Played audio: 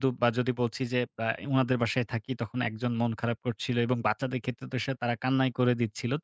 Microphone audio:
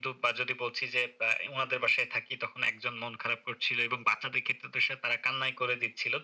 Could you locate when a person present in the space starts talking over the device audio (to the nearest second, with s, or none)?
none